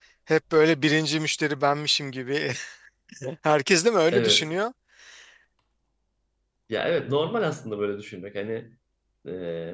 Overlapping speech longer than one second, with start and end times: none

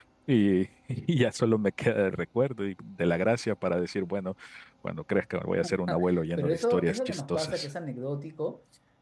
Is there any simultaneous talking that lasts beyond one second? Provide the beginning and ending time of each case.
6.4-7.7

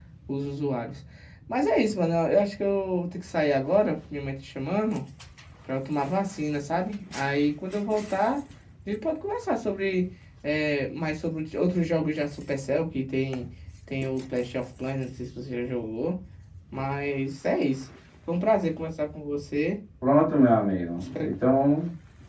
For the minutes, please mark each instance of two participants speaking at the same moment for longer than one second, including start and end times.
none

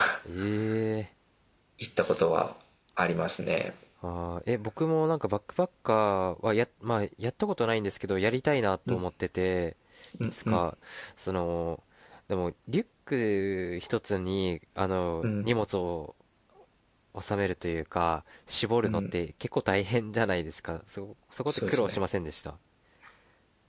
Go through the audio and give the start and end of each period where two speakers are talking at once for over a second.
none

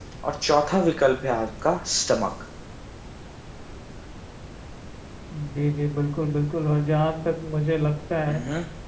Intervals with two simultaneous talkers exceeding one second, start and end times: none

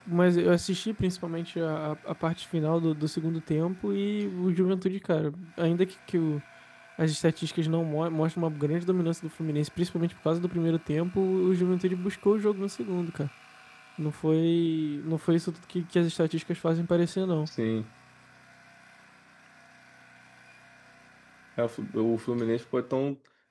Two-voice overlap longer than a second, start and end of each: none

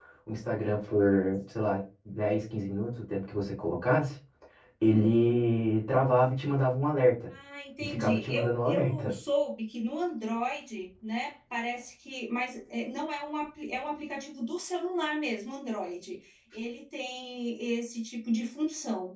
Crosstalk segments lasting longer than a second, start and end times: 7.8-9.1

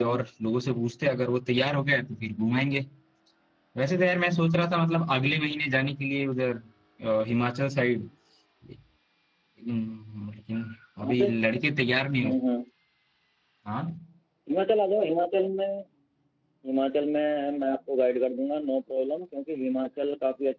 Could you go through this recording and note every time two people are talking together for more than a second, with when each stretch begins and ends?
none

